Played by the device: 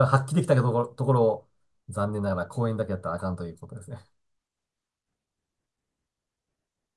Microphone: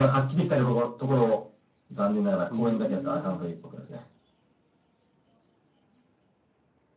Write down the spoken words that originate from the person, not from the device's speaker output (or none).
ーん。